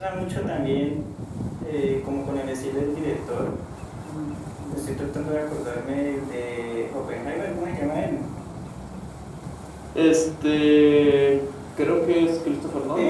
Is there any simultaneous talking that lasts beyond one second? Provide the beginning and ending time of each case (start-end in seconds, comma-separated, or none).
none